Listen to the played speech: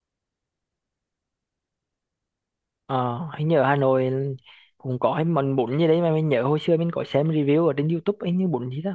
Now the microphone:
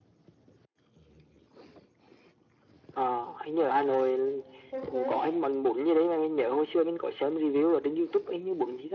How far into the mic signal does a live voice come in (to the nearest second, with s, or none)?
5 s